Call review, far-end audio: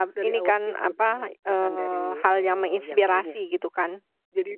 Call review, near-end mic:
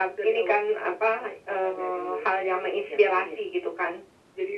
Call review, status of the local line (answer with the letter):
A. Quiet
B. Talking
A